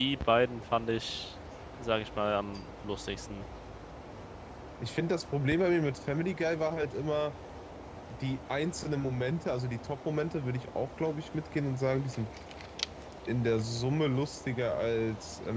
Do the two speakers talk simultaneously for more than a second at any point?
No

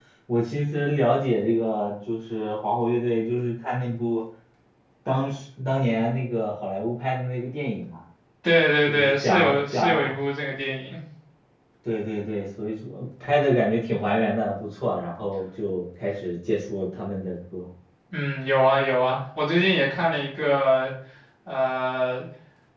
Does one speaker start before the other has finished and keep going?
Yes, from 8.9 s

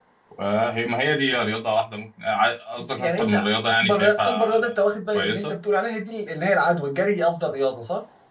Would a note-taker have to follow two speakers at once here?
Yes, from 3.0 s

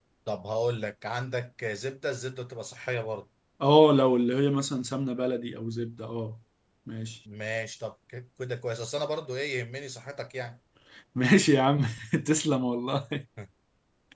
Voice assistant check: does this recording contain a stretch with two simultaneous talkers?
No

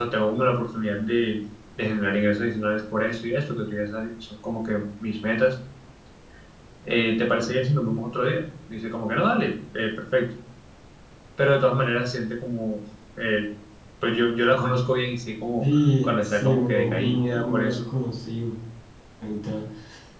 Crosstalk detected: Yes, from 15.6 s

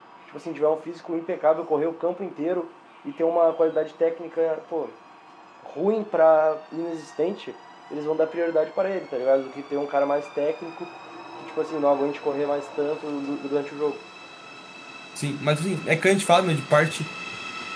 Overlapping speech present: No

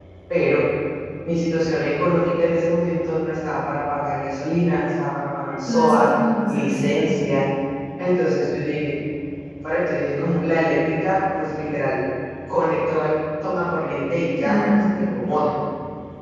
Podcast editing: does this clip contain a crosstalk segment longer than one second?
No

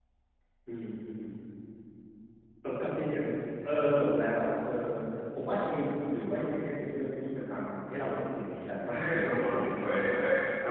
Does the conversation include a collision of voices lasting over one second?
Yes, from 9.0 s

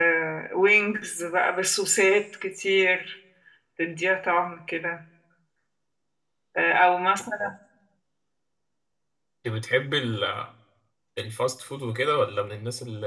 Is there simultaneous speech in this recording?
No

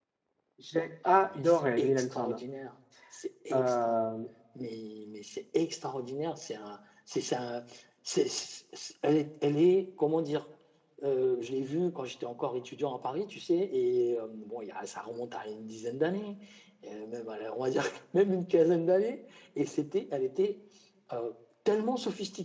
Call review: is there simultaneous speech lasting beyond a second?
Yes, from 1.1 s

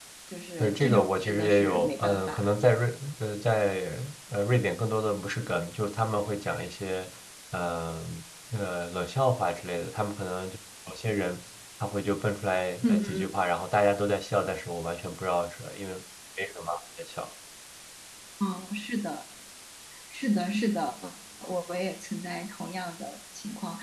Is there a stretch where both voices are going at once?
Yes, from 0.6 s

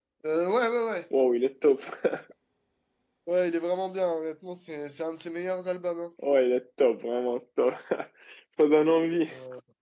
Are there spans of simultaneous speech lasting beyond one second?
No

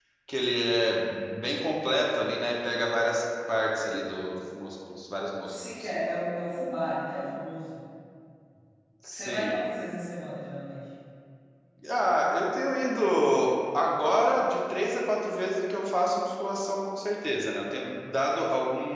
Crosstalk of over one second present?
No

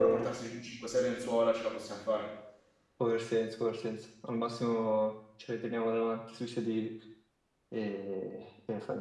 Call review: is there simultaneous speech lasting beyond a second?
No

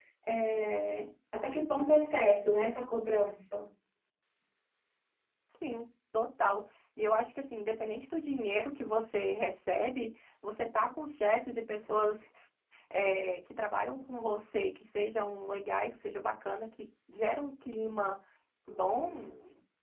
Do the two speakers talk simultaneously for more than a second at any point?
No

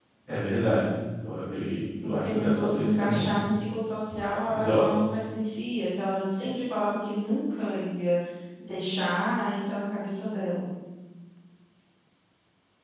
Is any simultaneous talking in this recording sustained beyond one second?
Yes, from 2.0 s

